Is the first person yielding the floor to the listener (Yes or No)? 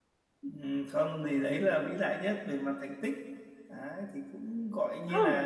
No